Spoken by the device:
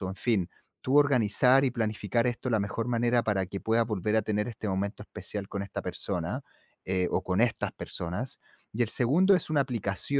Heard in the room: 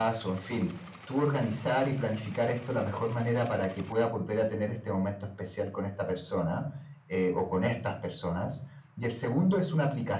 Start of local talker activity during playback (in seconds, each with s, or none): none